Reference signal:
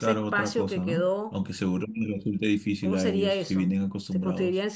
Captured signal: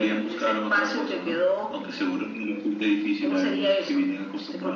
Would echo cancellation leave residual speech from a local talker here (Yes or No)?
No